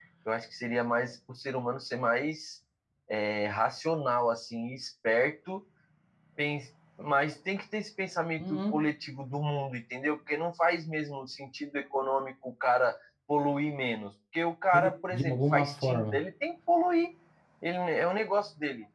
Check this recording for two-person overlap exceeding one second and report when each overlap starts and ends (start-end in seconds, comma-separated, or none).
14.7-16.2